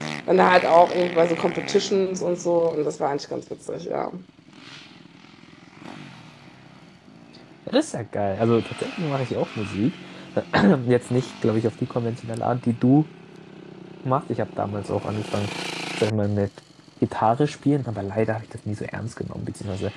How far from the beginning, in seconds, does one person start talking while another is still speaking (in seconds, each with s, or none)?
none